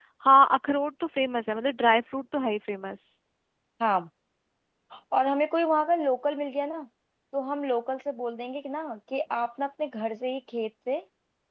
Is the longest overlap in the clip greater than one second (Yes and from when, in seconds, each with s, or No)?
No